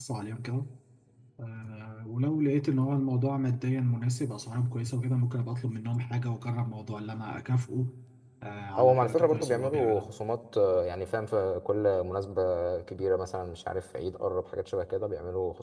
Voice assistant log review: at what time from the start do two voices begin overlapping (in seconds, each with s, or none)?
8.8 s